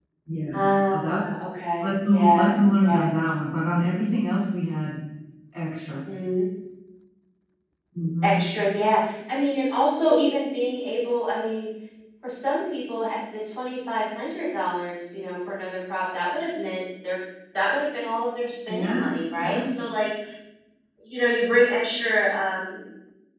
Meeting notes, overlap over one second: present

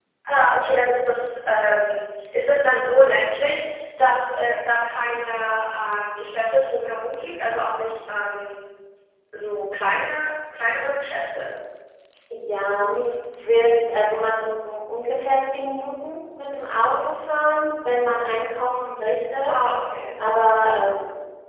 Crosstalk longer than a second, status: none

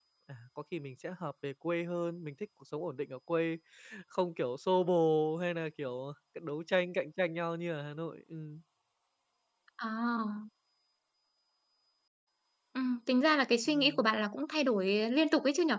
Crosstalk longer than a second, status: none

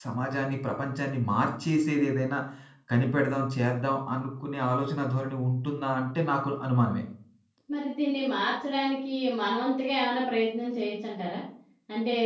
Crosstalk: none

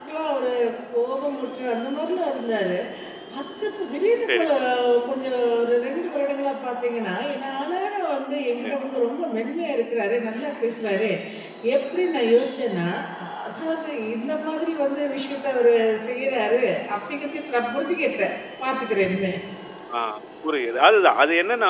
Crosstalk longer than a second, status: none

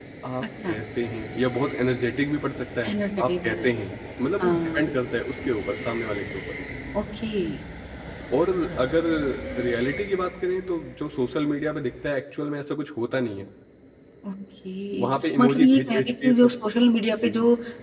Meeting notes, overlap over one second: present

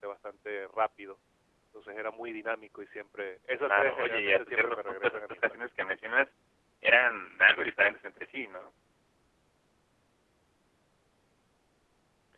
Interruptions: present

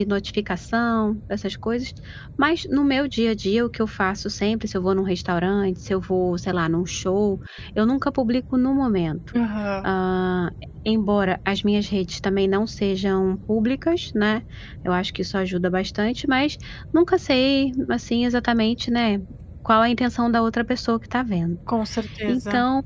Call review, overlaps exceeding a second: none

